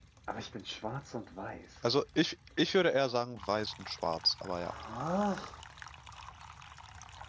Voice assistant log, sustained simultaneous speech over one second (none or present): none